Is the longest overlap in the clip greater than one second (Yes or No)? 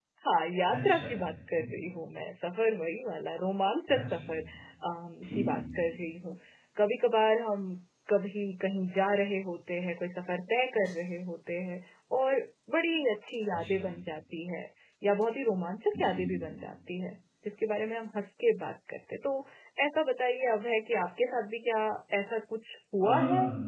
No